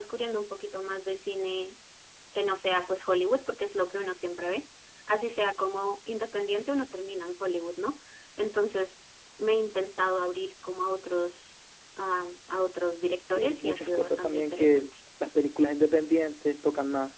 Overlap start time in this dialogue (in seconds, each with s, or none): 13.3 s